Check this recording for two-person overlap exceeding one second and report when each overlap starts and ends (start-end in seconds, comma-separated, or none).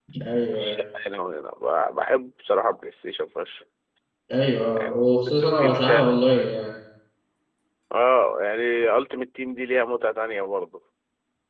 4.8-6.2